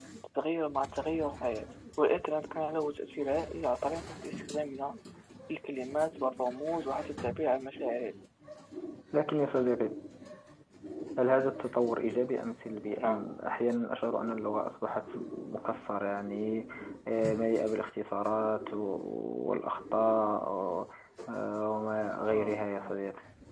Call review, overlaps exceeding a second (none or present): none